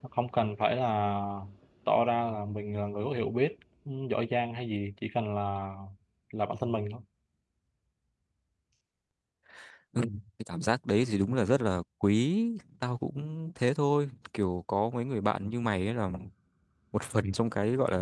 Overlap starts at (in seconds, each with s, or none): none